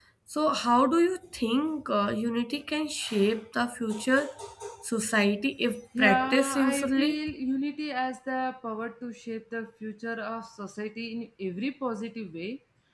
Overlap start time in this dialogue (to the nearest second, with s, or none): 6 s